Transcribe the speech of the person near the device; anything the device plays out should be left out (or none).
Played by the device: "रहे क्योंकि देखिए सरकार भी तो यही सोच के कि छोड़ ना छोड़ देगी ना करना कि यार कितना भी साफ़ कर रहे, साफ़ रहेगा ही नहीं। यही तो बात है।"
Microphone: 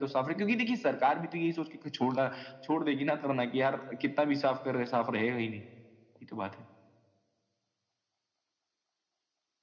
none